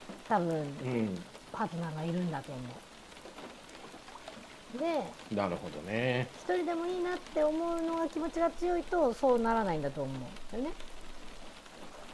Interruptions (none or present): none